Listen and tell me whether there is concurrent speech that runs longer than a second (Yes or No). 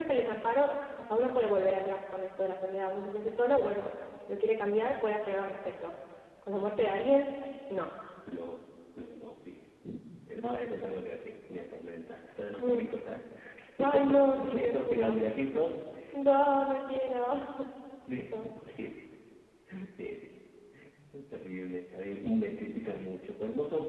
Yes